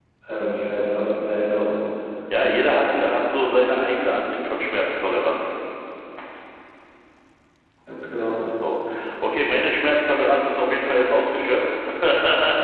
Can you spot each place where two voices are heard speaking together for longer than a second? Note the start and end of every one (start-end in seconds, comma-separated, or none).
none